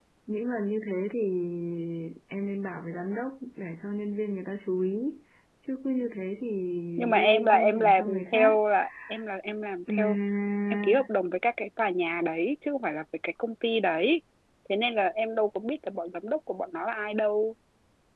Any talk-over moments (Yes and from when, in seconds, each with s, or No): Yes, from 7.0 s